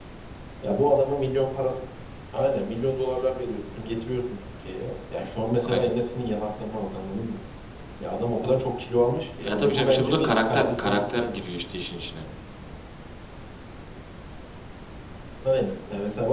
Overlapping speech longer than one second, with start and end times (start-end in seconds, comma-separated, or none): 9.4-11.4